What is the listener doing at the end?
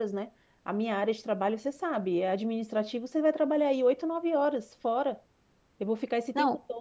listening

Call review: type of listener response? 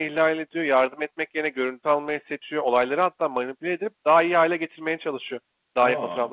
listening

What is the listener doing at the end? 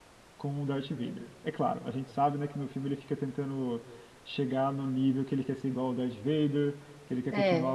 listening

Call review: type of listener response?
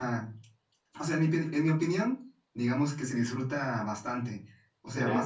listening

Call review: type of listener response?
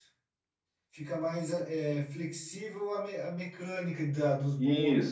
taking over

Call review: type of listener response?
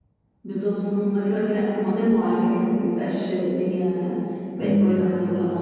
listening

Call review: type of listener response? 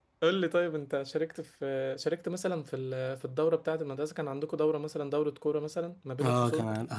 taking over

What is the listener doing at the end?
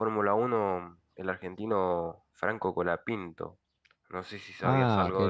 taking over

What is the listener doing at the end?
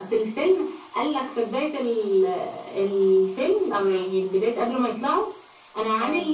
listening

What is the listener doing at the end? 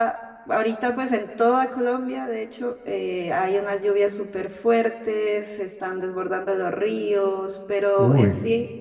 listening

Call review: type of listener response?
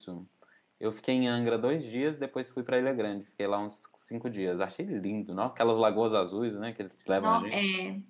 taking over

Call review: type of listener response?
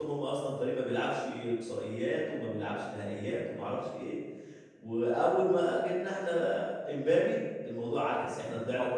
taking over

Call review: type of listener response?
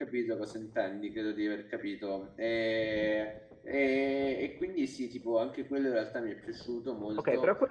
taking over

